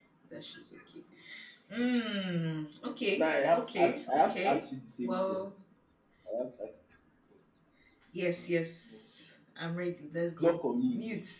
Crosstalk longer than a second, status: present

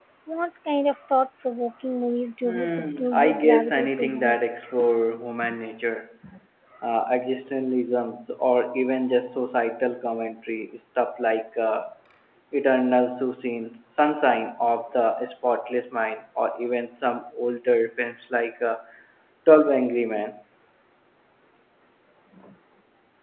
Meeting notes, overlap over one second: present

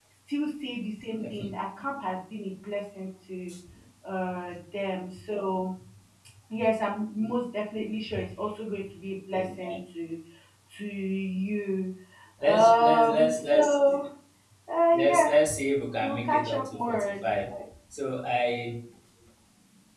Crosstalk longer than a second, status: present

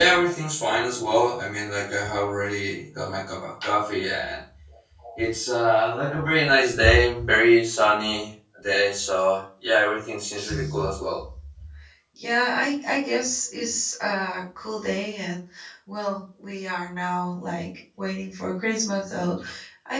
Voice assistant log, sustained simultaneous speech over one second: none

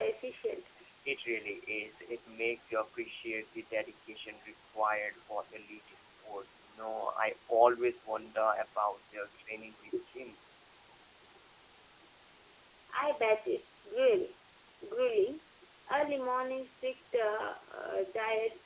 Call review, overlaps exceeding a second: none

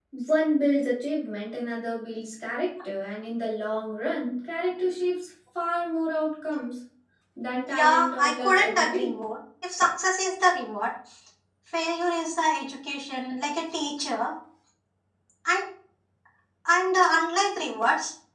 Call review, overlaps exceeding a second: present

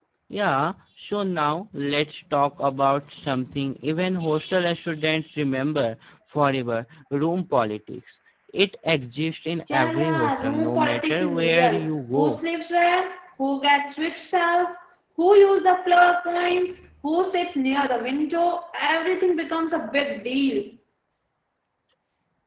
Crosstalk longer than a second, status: present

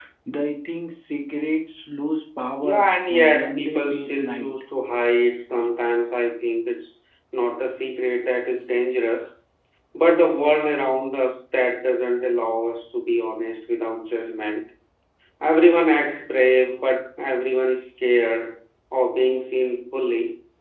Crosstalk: present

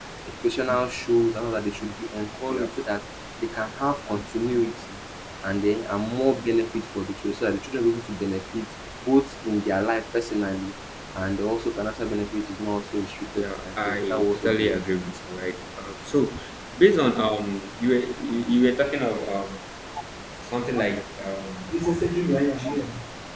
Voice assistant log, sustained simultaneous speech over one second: present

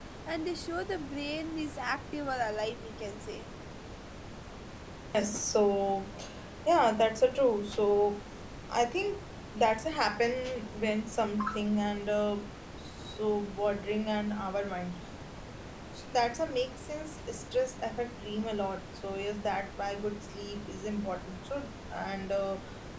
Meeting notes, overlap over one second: none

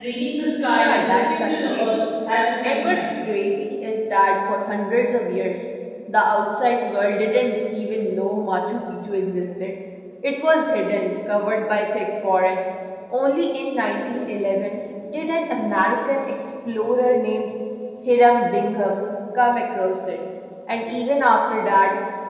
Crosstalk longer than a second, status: present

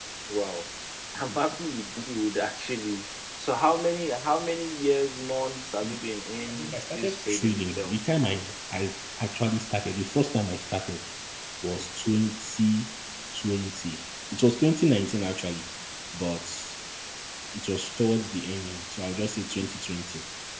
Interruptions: present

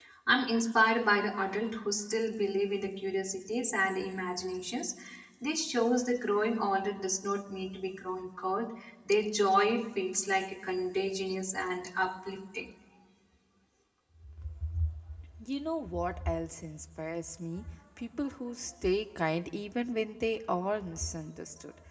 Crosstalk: none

